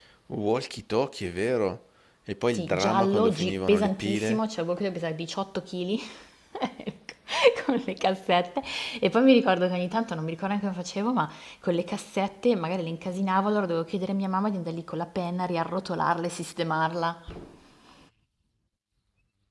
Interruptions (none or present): present